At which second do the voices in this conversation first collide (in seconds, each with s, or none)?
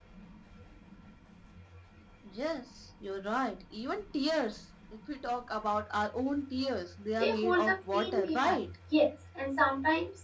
7.2 s